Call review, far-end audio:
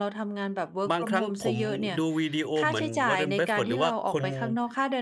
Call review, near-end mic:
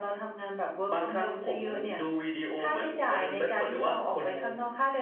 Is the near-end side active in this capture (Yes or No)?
No